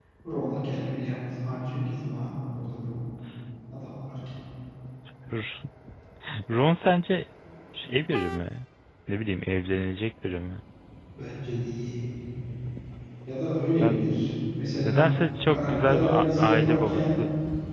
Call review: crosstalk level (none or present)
present